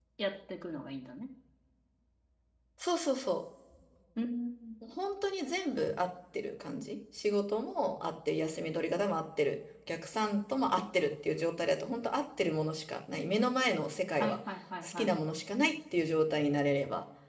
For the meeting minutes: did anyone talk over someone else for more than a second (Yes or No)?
No